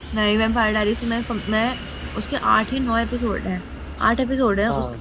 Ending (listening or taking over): listening